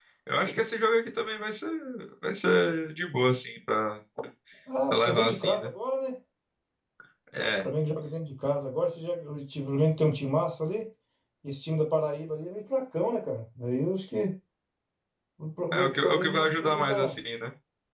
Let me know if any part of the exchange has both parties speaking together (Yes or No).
Yes